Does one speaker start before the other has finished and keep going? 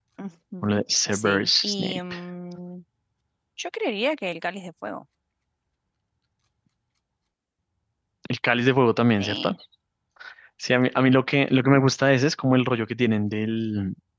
Yes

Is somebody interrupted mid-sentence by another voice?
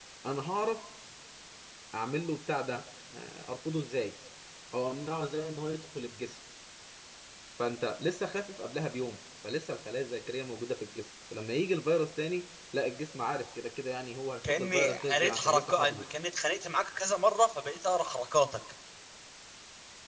Yes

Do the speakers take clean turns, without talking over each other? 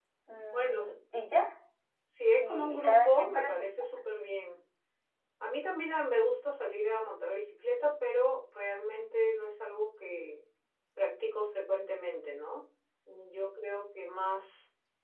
No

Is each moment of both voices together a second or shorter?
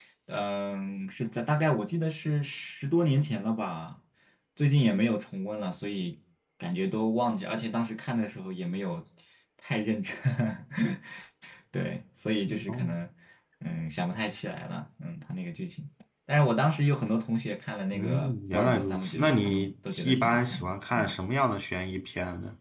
No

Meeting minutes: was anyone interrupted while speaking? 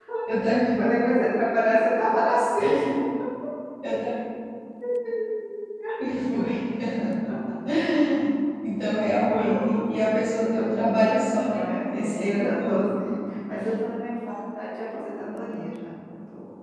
Yes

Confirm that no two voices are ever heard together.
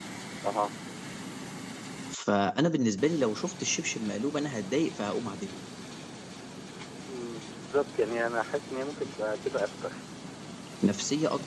Yes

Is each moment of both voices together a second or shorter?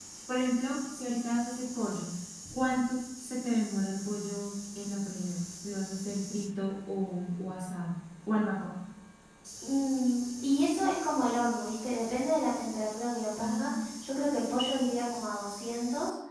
Yes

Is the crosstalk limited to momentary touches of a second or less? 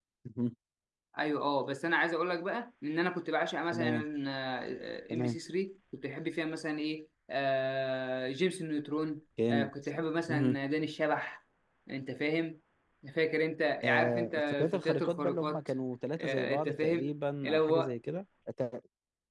No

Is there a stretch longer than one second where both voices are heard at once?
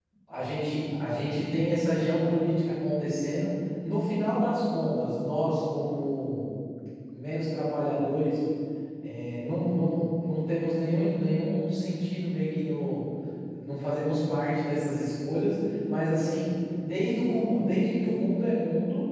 No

